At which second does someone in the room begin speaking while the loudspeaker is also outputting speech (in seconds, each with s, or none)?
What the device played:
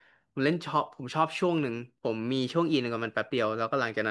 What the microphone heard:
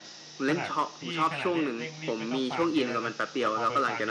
0.5 s